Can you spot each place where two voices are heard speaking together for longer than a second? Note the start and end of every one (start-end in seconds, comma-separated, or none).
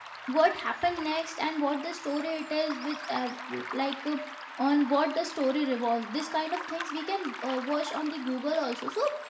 none